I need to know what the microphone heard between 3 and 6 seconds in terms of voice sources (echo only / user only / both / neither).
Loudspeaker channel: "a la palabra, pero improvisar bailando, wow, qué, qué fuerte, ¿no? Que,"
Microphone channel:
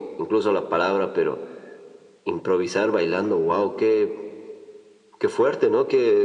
echo only